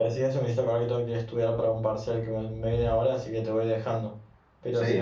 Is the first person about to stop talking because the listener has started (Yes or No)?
Yes